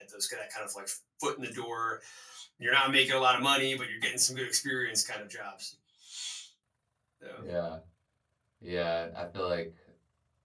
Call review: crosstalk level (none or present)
none